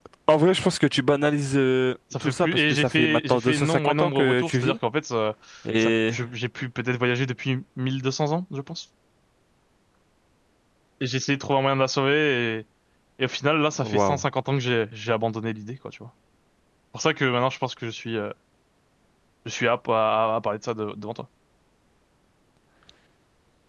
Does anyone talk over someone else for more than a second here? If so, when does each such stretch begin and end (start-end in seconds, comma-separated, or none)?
2.2-4.8